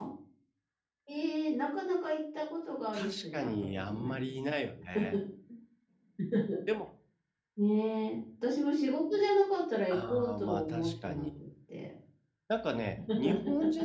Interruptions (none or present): present